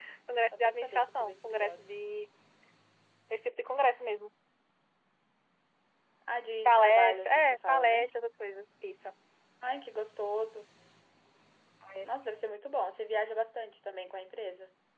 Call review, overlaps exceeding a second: present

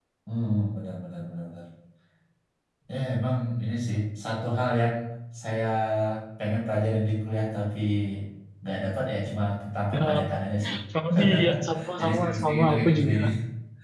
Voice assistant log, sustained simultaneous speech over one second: present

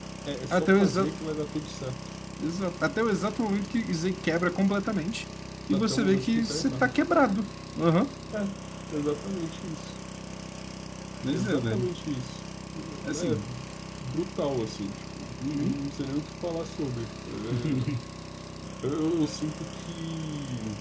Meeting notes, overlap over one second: present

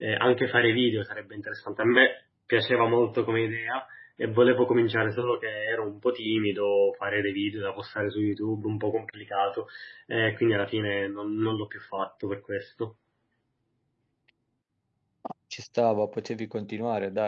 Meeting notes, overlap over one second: none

